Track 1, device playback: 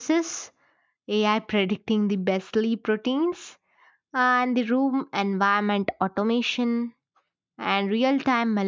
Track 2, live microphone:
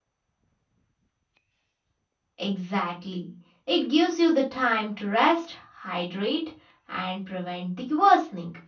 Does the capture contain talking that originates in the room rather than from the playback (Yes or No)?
Yes